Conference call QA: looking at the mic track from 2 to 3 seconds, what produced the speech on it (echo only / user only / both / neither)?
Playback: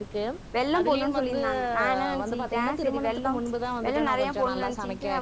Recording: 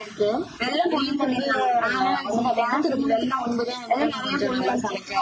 both